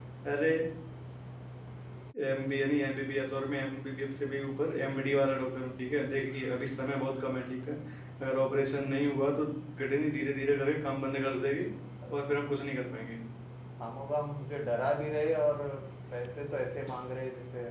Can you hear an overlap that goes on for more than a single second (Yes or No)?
No